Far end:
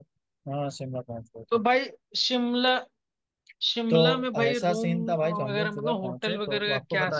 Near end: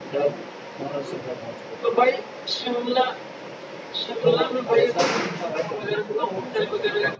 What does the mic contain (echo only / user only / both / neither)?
echo only